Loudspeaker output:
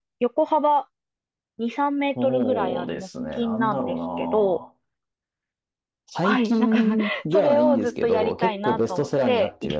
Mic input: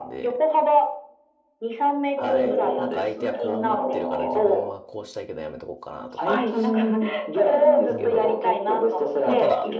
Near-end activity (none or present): present